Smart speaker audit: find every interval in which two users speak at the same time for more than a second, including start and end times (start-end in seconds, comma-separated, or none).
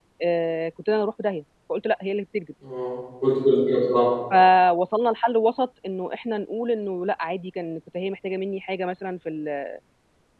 none